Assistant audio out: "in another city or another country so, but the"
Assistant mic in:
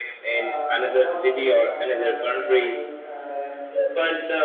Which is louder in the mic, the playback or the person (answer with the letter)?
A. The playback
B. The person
A